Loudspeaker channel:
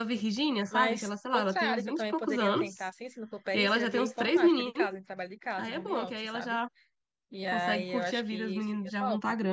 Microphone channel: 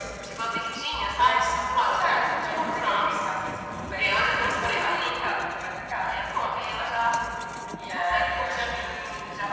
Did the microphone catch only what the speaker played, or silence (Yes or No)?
Yes